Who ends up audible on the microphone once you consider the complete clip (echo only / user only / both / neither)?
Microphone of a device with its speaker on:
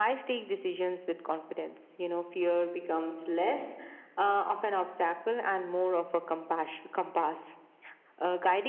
echo only